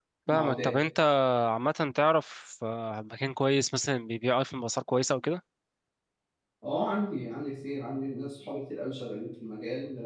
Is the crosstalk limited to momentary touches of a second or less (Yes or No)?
Yes